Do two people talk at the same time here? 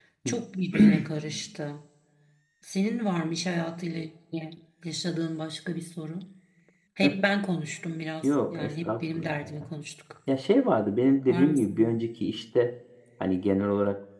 Yes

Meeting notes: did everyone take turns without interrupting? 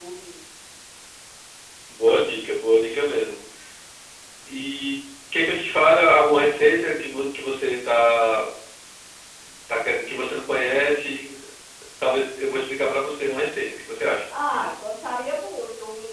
Yes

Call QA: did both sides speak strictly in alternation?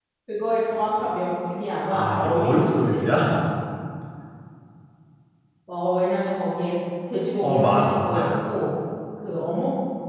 No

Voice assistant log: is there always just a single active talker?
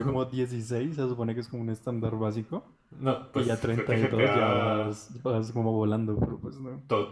No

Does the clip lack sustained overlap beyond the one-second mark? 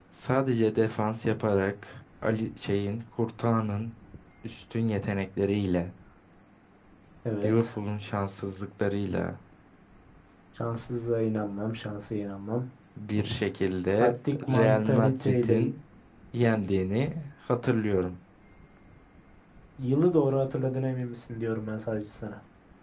No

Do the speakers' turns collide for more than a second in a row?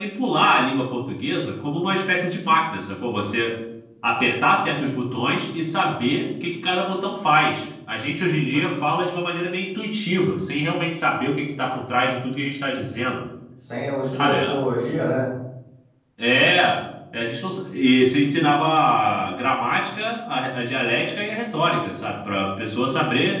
No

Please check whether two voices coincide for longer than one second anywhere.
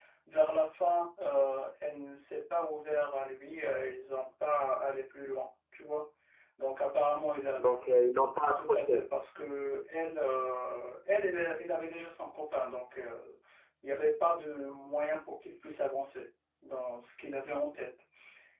No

